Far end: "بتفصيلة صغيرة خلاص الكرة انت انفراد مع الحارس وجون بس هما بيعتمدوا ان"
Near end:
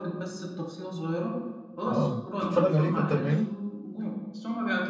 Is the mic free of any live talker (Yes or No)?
No